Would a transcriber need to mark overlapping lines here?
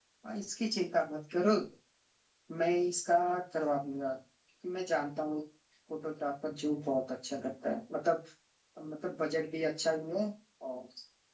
No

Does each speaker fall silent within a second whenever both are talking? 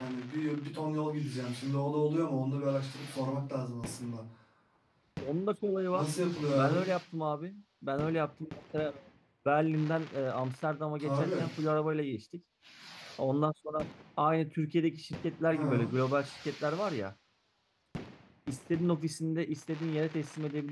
Yes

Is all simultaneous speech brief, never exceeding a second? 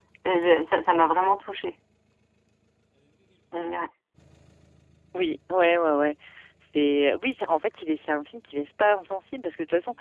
Yes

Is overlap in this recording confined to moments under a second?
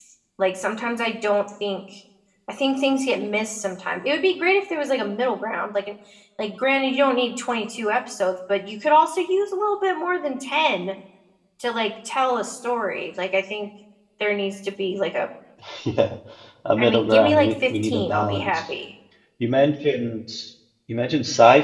No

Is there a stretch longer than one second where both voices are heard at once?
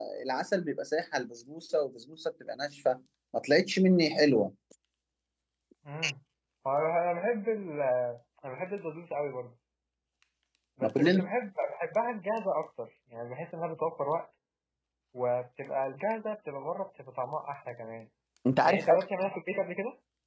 No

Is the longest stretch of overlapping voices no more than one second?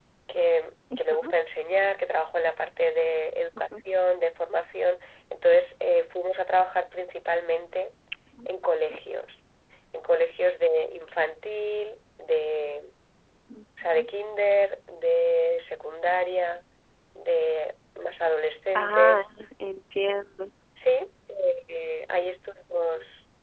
Yes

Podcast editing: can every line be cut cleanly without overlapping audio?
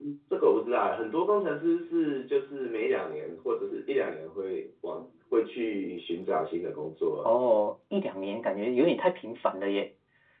Yes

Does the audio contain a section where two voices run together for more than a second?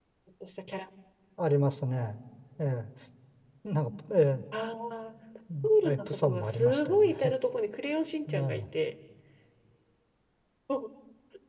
Yes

